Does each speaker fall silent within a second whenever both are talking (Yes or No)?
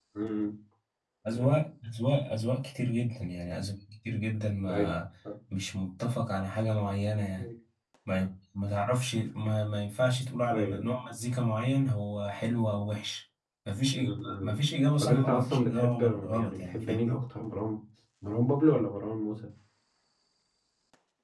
No